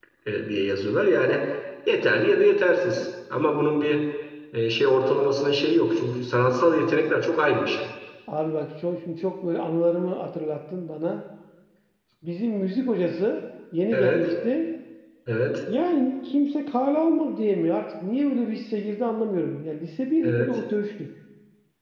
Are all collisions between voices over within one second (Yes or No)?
Yes